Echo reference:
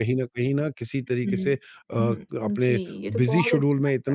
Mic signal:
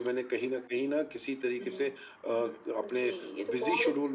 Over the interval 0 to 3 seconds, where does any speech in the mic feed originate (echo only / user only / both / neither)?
echo only